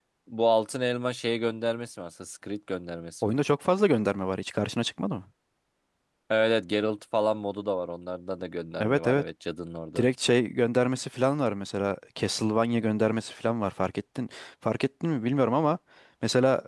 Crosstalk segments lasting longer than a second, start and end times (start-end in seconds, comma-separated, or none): none